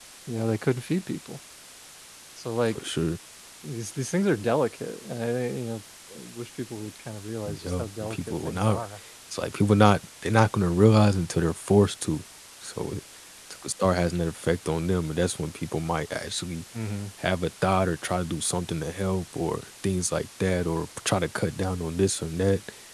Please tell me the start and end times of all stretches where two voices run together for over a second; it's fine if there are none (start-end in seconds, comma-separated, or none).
7.5-8.8